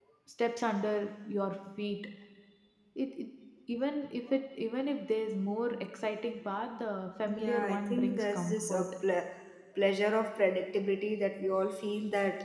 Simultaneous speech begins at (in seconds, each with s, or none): 7.2 s